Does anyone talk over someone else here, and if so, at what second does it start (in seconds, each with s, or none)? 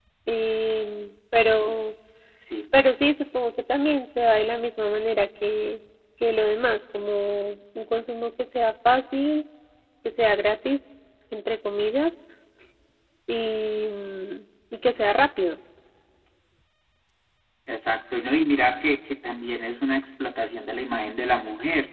none